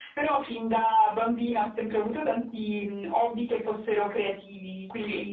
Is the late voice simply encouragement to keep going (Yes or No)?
Yes